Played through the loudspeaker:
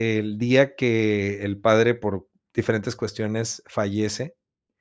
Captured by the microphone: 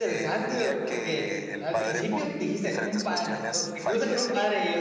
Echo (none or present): present